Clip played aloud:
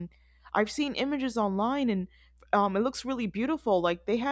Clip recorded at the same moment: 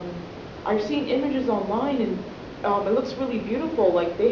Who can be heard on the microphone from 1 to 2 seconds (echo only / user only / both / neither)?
echo only